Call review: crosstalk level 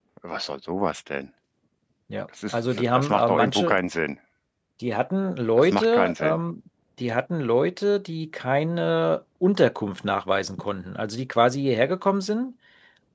present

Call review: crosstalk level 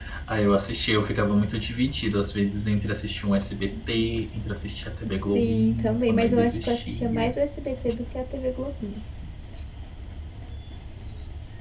present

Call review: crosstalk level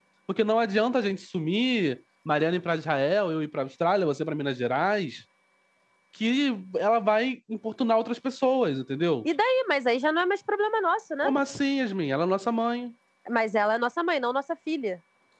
none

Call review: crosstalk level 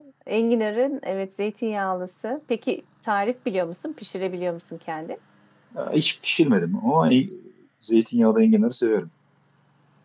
none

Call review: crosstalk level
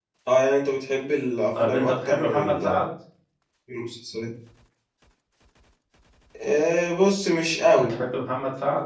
present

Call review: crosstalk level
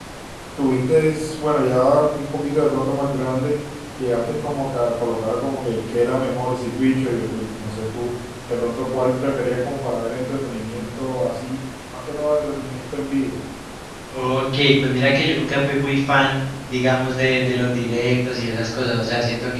none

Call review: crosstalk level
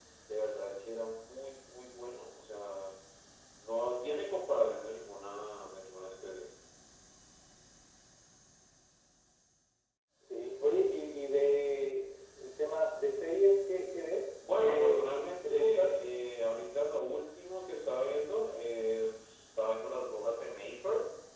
present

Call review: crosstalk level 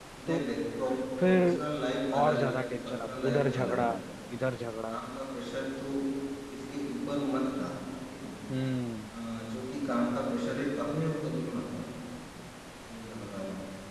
present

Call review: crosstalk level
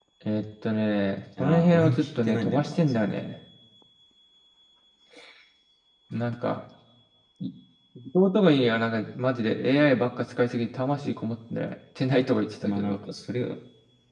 present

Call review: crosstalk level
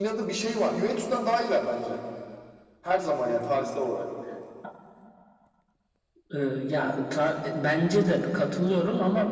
none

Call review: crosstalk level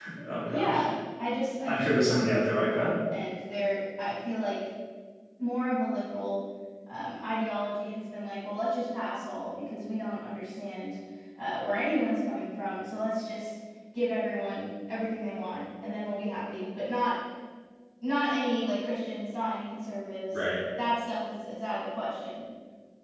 present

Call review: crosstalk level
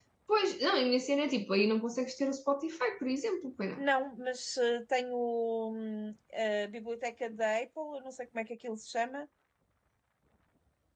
none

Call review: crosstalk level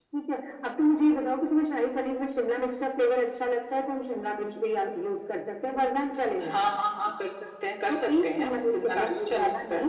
present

